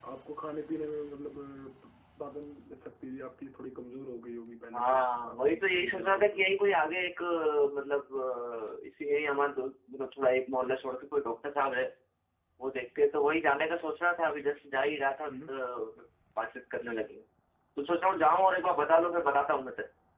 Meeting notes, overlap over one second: present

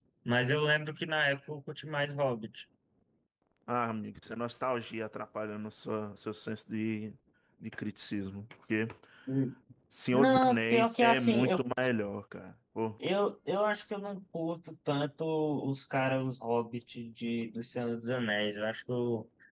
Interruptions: present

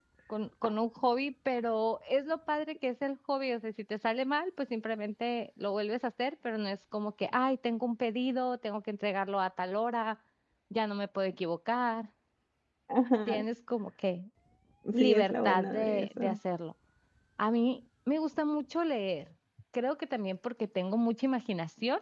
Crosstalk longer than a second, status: present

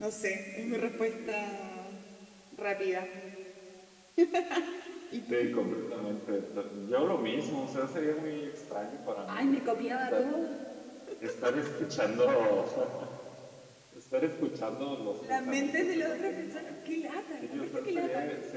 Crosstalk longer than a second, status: present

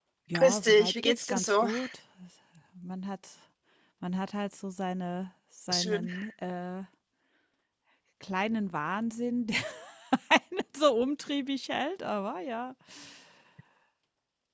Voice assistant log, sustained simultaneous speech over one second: present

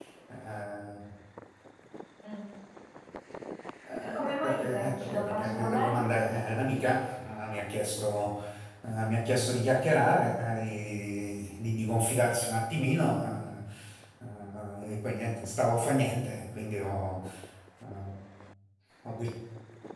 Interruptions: present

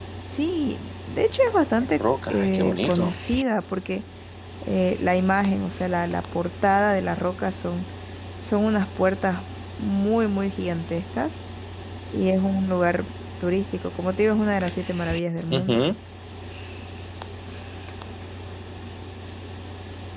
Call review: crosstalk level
present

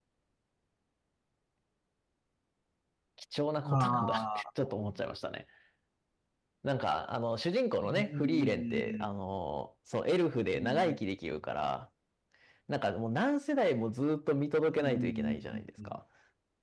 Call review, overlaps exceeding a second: present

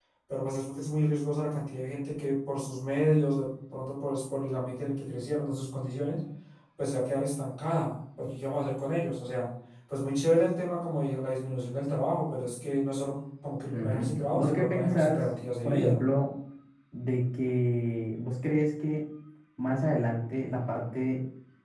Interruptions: present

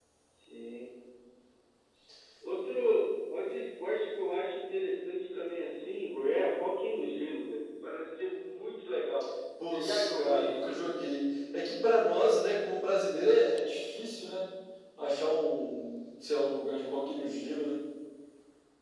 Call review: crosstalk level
present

